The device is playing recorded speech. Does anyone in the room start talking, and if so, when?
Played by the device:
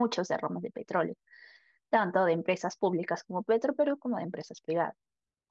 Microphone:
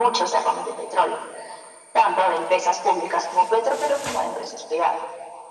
none

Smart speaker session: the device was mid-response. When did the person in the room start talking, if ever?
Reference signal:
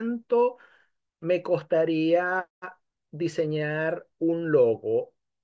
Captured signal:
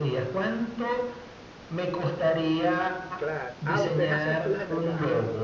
3.1 s

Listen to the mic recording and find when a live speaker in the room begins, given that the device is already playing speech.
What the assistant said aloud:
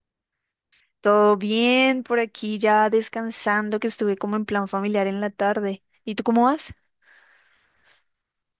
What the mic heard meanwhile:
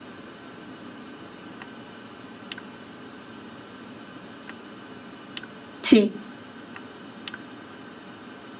5.8 s

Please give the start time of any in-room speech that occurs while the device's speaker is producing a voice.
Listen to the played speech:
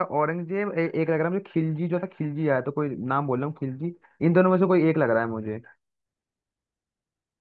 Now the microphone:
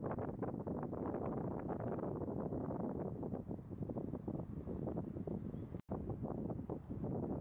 none

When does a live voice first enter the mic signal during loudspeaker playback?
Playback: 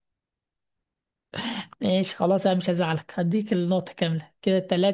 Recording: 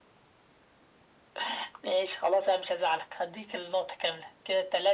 none

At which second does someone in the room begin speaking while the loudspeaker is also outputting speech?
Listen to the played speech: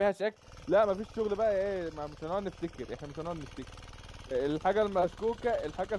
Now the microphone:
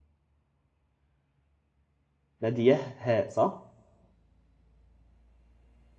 2.4 s

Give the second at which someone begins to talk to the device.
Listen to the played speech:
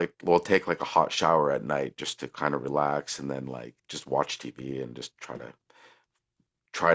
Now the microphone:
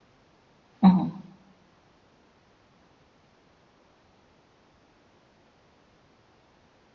0.8 s

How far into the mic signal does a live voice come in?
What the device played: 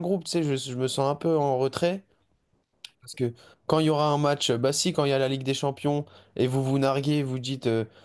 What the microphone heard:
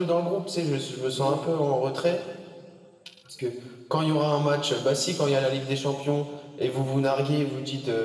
1.2 s

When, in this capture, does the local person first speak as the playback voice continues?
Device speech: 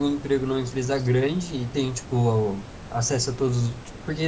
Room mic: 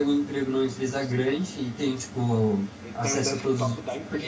2.8 s

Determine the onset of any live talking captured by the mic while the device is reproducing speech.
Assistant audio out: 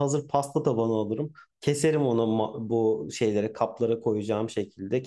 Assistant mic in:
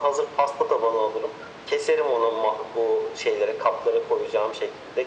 none

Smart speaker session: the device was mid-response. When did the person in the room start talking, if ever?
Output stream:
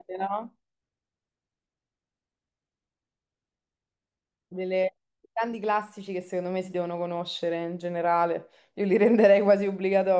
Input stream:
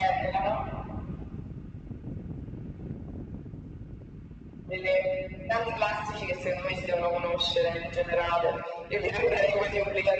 none

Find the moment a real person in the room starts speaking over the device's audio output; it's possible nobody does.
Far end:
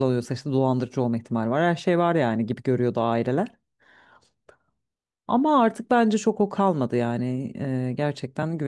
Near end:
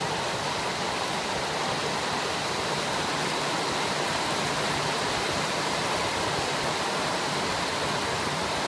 none

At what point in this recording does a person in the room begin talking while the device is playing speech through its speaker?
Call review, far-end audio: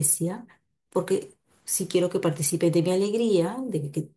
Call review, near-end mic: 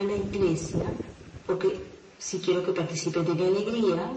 none

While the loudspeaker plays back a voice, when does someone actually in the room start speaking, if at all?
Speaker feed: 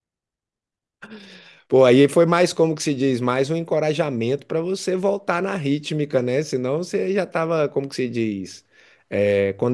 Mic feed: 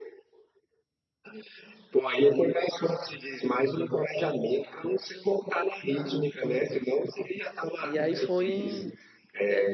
7.8 s

